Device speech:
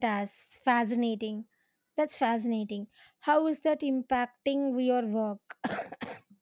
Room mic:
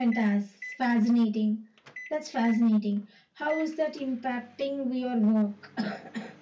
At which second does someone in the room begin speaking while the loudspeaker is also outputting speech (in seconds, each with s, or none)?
none